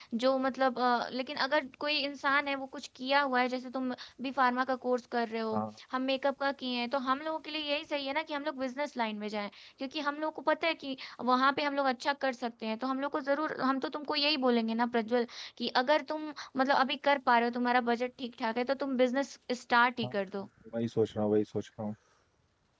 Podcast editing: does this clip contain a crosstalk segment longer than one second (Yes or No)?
No